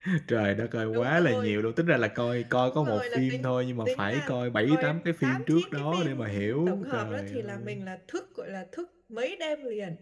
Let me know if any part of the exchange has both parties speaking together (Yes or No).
Yes